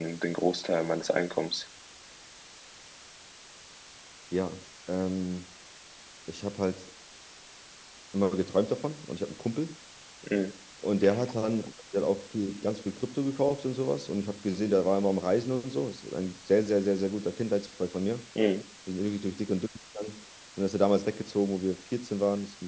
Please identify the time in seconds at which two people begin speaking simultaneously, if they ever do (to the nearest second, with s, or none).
none